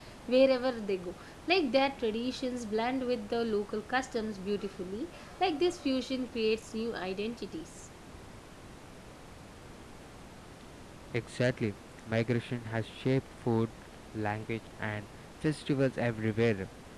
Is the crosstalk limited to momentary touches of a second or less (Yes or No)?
Yes